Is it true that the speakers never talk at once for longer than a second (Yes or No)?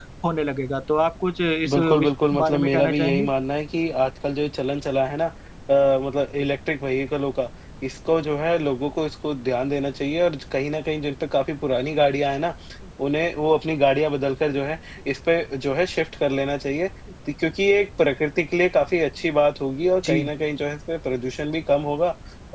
No